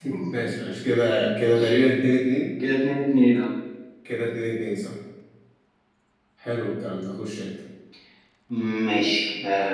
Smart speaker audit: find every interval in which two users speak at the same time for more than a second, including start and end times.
none

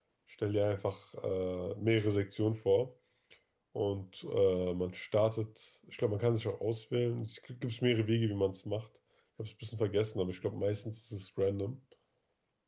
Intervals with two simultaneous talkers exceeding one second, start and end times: none

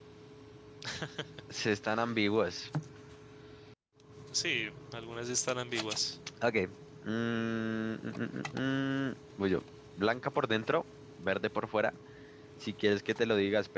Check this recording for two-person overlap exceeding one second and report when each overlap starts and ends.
none

